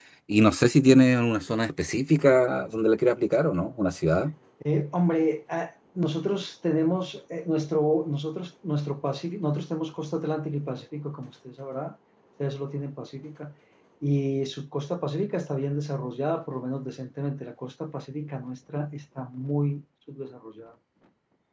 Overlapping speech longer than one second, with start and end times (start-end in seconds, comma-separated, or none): none